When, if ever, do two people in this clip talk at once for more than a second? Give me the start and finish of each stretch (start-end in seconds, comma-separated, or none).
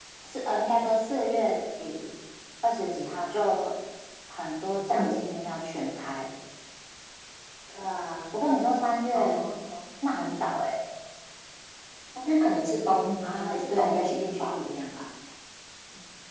13.3-14.6